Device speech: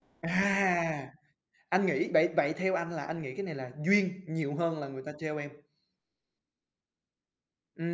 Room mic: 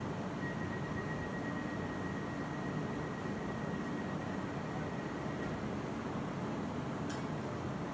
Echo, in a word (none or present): none